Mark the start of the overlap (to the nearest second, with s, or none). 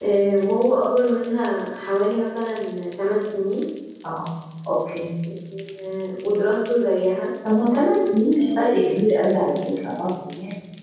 none